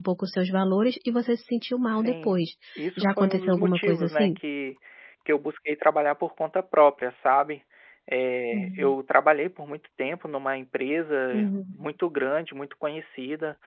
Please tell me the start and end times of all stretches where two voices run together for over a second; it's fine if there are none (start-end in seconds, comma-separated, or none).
3.0-4.4